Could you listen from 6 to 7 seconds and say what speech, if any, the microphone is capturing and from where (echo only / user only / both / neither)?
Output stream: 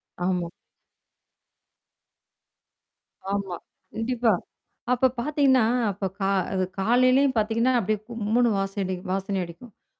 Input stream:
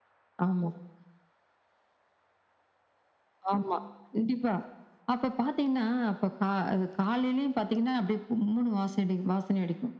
echo only